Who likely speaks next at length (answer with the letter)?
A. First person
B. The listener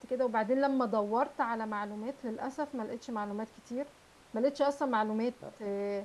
A